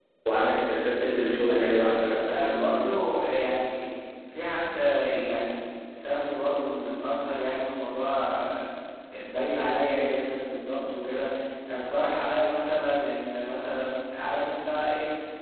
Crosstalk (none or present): present